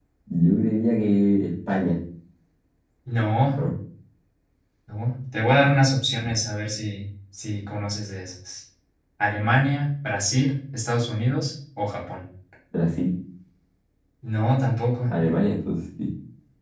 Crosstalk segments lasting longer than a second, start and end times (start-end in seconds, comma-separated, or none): none